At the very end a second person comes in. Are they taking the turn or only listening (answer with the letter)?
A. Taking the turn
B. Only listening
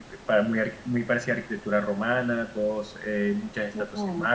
B